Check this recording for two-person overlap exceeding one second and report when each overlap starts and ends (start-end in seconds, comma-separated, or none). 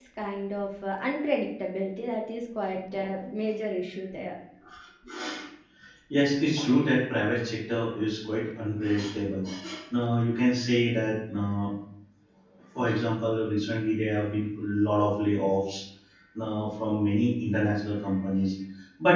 none